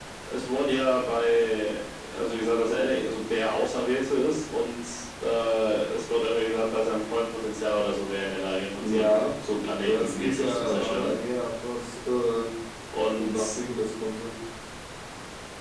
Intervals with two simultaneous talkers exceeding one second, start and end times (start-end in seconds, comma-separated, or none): 9.8-11.1